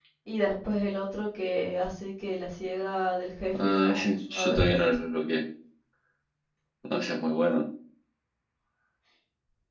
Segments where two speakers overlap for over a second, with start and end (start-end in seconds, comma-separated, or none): 3.6-4.8